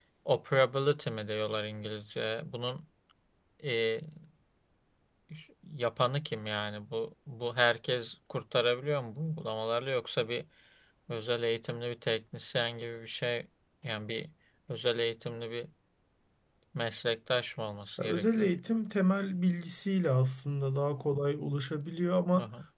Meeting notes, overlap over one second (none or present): none